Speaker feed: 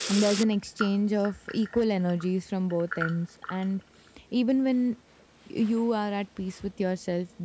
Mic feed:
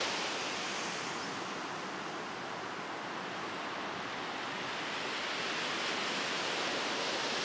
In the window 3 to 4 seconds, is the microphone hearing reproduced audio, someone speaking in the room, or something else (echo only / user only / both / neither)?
neither